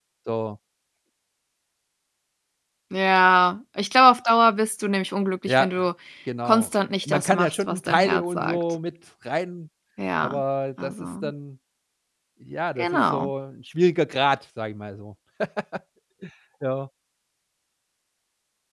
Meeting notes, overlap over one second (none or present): present